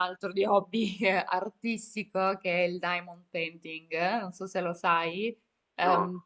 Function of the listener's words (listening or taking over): listening